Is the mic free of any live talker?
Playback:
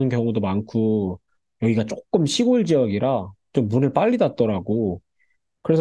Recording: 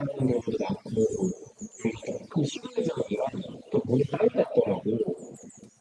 Yes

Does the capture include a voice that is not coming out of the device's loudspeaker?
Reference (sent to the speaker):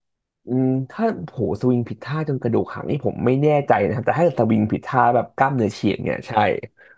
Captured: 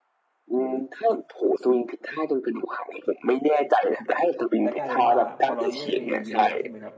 Yes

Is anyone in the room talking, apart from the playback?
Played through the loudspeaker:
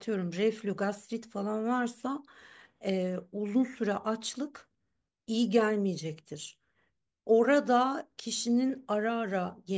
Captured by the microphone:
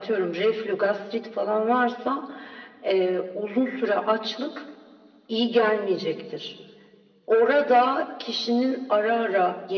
No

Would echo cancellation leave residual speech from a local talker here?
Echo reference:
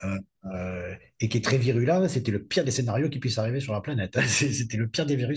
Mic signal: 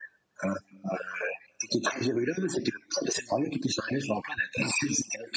No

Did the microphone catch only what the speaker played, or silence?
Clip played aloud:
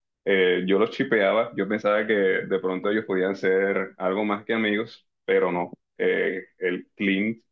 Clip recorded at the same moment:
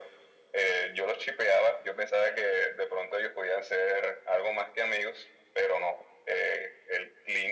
Yes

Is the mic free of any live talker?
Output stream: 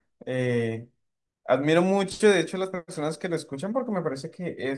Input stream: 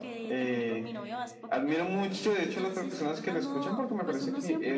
No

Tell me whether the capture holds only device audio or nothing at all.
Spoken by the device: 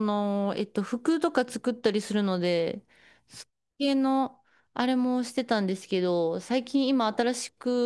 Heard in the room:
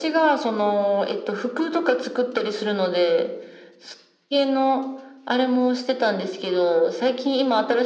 Yes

